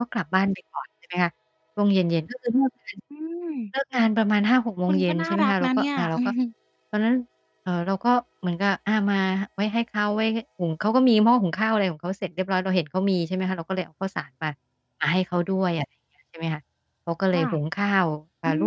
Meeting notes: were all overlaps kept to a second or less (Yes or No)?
No